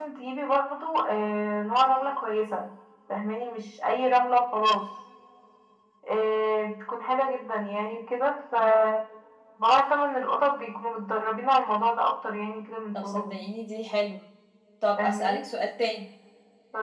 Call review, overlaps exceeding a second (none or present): none